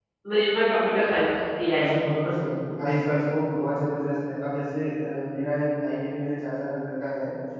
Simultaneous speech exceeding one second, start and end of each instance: none

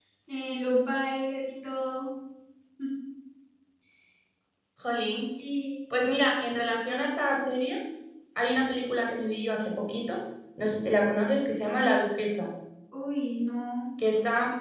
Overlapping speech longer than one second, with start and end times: none

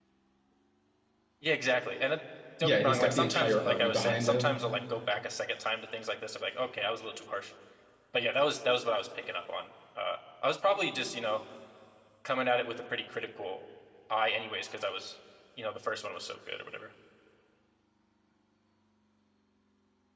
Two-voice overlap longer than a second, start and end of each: 2.6-4.6

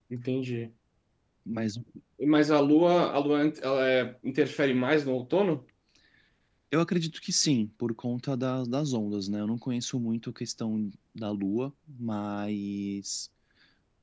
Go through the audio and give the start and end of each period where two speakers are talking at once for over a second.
none

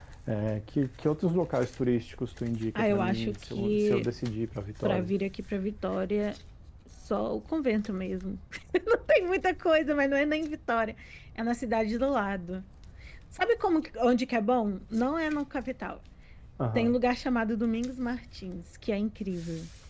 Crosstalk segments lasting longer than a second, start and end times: 2.8-4.1

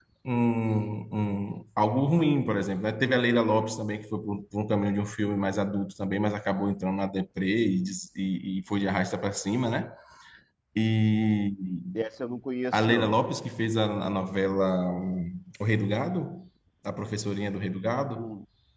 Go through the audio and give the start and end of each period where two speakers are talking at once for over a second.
none

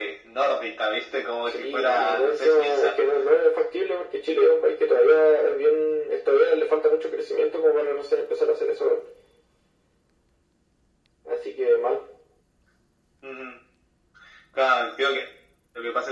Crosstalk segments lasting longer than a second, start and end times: 1.5-3.0

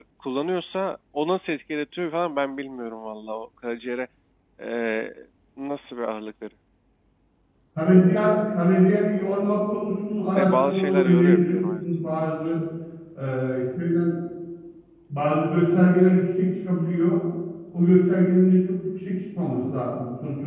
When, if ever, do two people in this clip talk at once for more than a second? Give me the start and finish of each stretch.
10.3-11.8

